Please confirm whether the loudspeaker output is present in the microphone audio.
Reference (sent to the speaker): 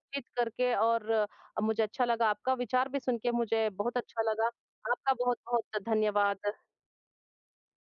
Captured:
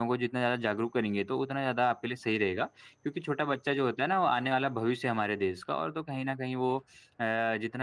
No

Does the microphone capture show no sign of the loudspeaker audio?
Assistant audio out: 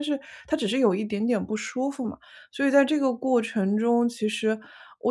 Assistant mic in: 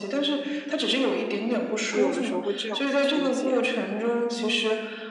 No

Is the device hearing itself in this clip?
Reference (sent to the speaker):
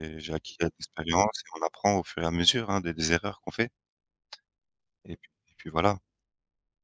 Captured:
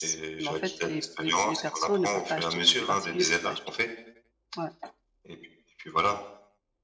Yes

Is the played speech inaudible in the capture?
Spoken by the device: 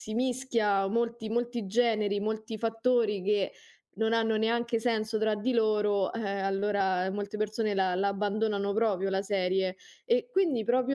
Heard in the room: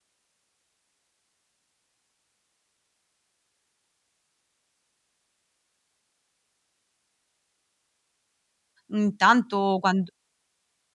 Yes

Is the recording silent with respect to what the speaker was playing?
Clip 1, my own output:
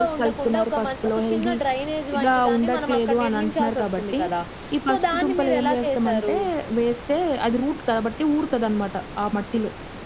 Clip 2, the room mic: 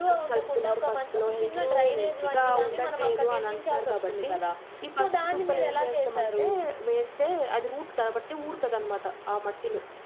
No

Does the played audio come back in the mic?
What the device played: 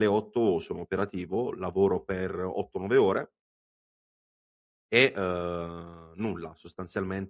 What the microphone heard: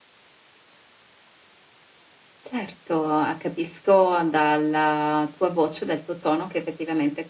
No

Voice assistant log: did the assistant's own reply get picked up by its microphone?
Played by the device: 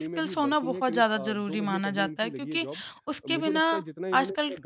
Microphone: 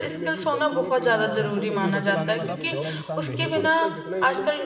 Yes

